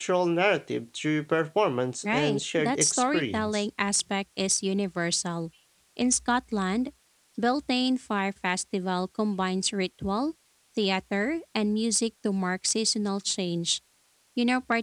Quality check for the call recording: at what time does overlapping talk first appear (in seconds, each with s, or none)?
2.0 s